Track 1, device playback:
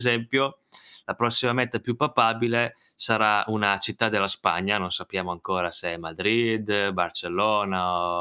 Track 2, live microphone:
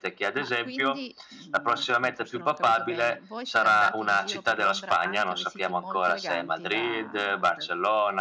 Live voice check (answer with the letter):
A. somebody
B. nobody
A